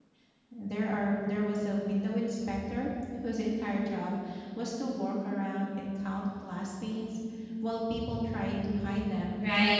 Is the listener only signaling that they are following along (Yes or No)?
No